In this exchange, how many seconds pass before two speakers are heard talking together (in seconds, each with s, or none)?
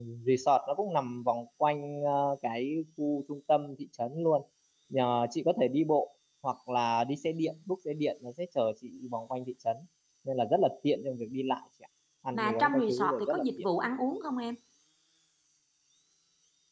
12.3 s